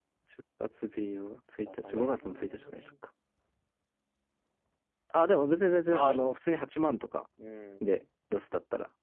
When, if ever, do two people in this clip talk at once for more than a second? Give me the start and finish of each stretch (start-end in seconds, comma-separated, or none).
1.6-2.9